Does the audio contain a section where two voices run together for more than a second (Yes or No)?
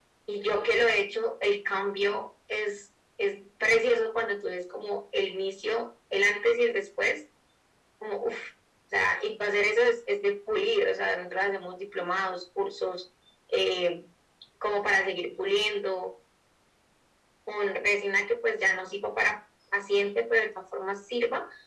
No